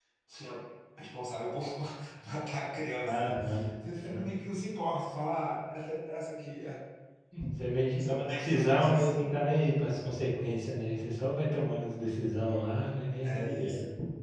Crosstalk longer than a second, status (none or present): present